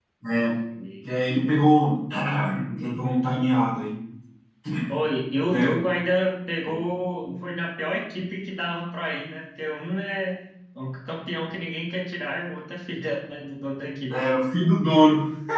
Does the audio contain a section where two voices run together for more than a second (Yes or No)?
No